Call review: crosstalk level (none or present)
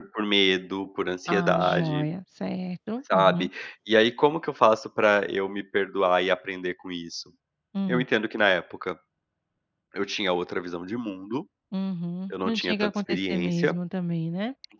present